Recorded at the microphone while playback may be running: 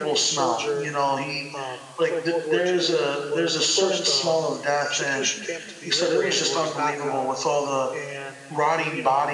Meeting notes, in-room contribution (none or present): present